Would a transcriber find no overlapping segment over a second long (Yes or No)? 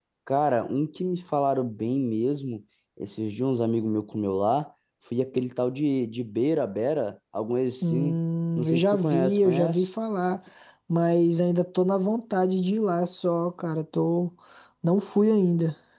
No